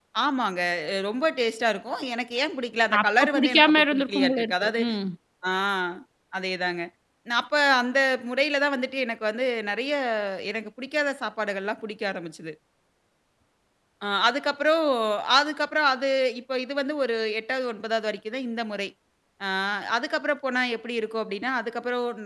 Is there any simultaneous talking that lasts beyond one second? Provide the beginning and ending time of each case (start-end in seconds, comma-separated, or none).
3.0-4.8